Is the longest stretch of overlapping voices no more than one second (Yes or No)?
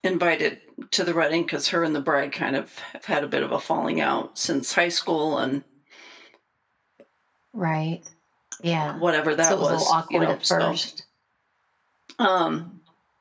No